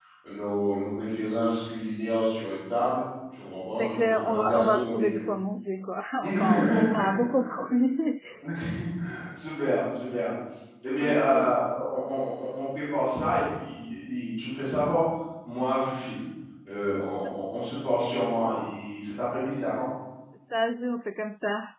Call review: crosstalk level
present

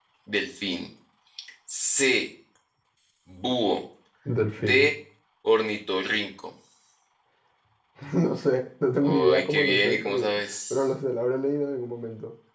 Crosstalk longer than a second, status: present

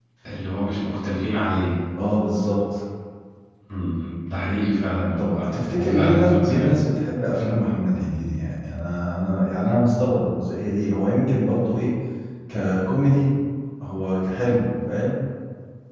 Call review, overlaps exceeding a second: present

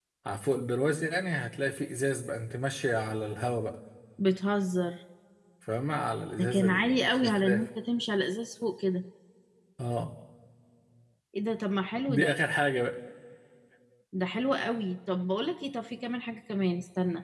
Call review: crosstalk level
present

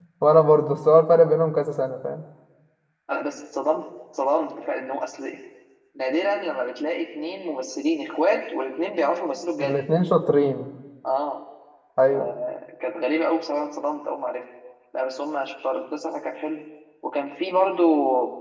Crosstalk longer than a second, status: none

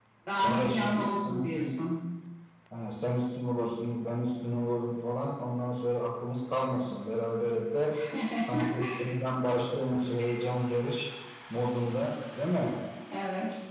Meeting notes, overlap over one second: present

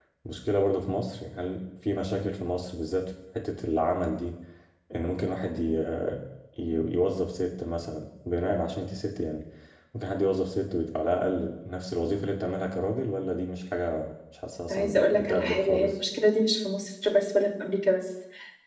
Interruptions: present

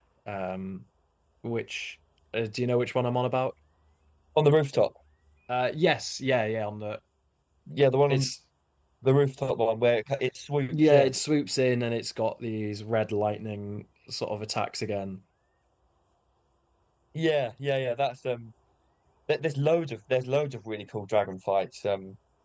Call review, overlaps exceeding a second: none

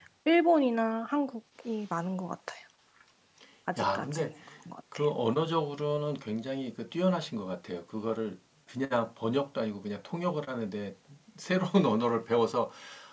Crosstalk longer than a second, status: none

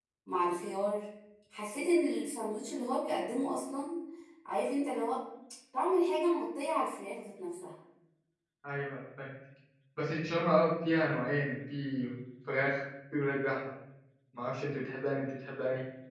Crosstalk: none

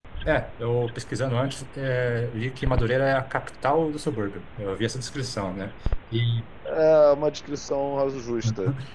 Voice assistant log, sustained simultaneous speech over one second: none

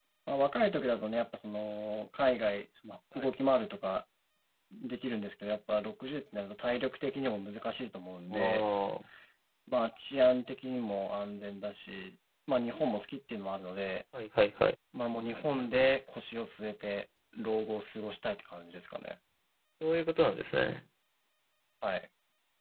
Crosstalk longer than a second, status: none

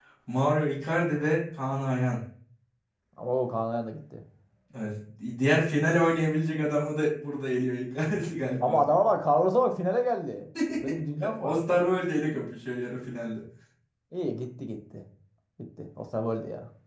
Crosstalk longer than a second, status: none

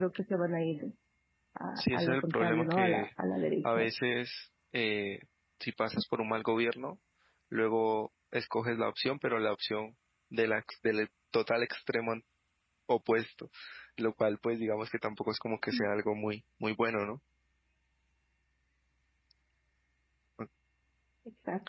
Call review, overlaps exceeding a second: present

